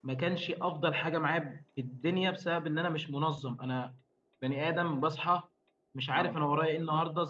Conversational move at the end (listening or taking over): listening